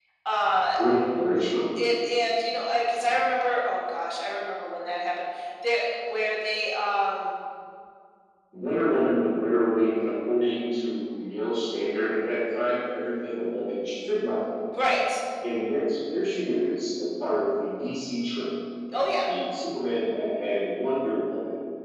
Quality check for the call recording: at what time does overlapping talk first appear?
none

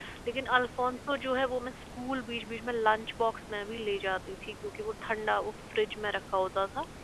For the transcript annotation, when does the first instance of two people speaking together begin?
none

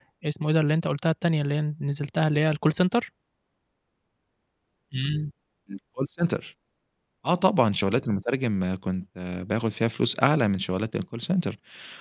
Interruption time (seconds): none

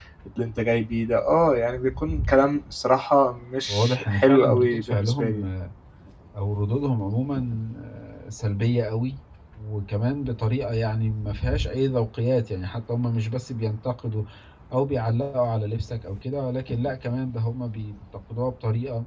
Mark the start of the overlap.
3.7 s

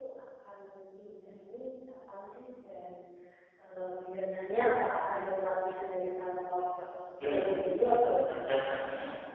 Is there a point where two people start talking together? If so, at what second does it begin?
7.2 s

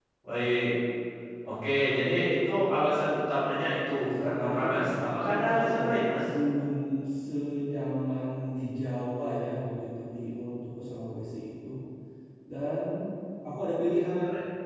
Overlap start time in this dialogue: 3.9 s

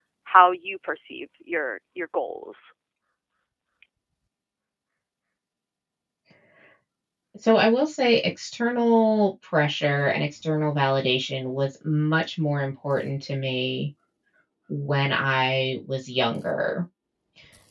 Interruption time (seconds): none

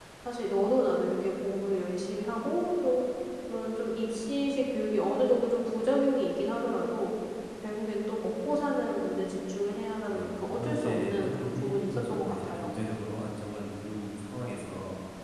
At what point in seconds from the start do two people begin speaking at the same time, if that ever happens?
10.1 s

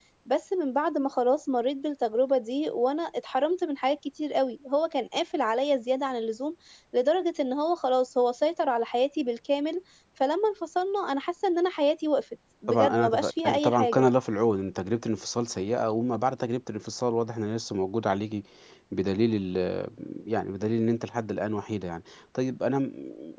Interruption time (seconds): 12.7 s

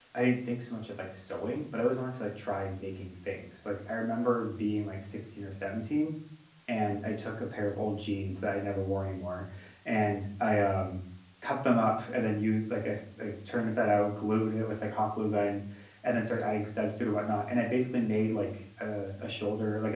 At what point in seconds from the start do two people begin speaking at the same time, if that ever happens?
none

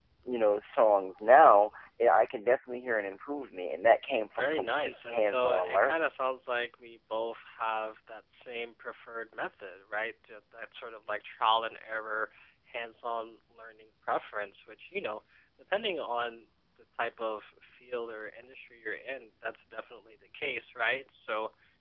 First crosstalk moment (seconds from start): 4.4 s

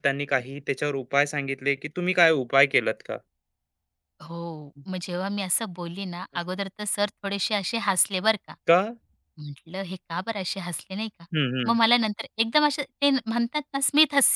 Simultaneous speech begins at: none

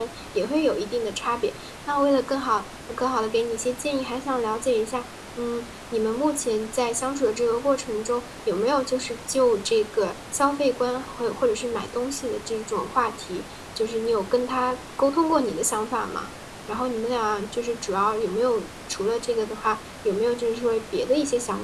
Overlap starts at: none

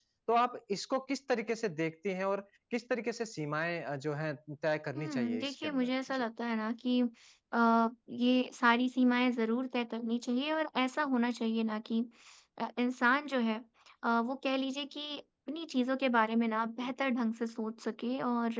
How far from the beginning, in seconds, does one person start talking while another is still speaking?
5.0 s

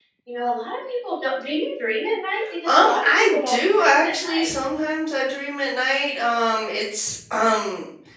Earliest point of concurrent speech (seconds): 2.4 s

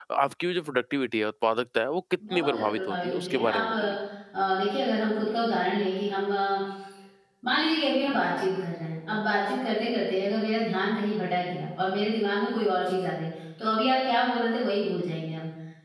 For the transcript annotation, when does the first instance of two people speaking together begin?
2.2 s

